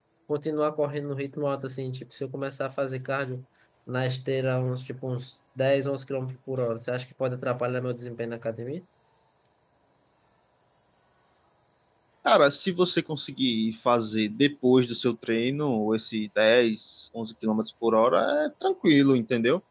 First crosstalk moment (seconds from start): none

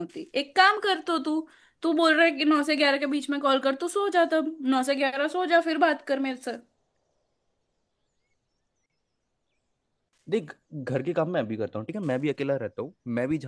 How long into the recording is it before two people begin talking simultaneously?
none

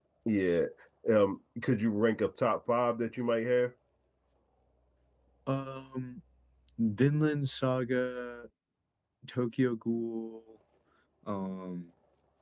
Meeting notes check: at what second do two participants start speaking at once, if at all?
none

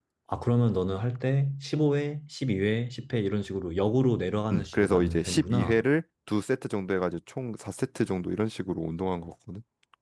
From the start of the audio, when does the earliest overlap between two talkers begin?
4.5 s

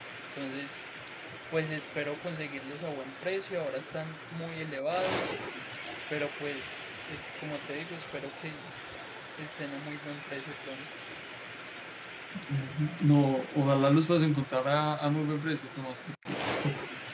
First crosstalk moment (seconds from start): none

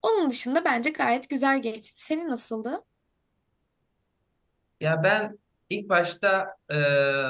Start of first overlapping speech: none

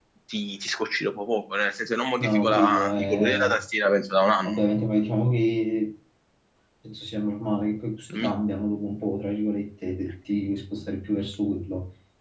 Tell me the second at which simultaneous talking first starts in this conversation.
2.2 s

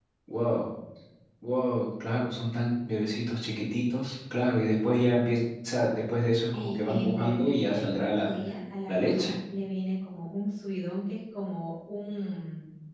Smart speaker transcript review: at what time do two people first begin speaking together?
6.5 s

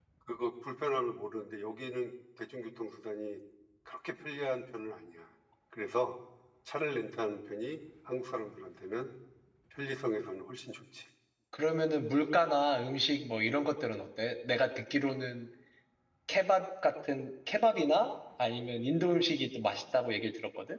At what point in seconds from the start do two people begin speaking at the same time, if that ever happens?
none

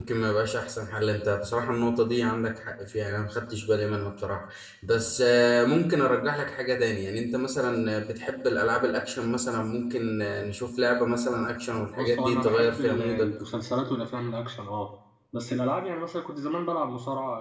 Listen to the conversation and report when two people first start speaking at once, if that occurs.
12.0 s

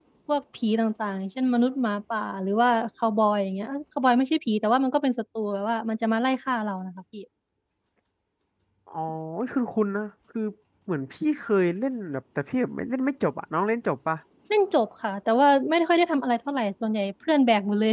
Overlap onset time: none

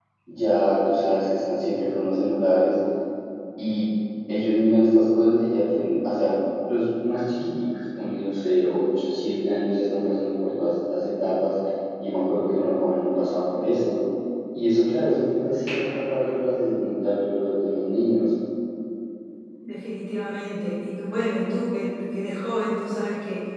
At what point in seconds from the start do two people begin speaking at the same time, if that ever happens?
none

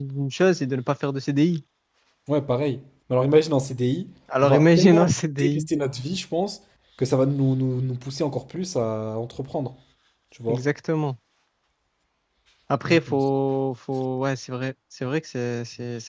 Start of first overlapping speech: 4.4 s

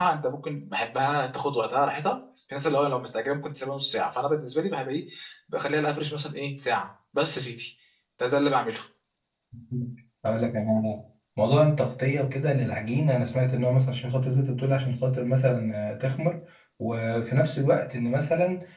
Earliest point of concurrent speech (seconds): none

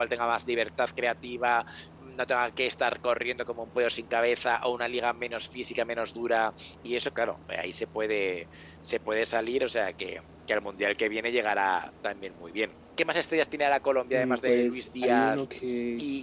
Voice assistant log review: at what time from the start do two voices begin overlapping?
14.1 s

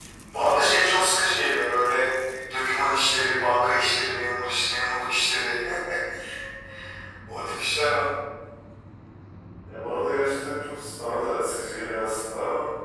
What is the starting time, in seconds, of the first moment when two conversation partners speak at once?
none

